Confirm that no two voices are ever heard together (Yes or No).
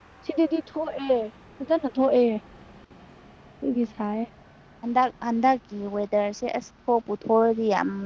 Yes